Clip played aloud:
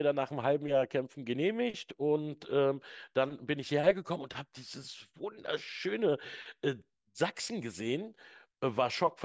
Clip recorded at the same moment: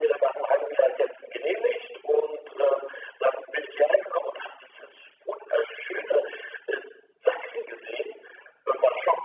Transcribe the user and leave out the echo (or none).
none